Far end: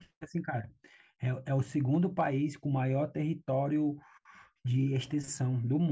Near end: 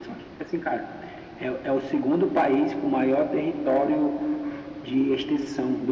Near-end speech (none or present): none